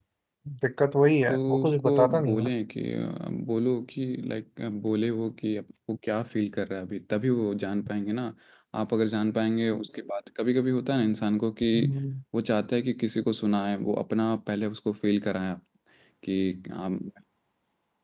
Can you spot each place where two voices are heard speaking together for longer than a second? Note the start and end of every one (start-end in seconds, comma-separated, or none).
1.3-2.5